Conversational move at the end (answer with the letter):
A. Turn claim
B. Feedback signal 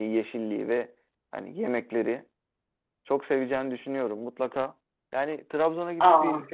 B